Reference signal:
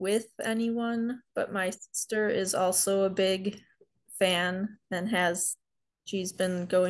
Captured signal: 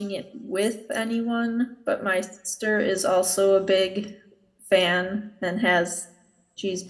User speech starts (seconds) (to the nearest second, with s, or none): none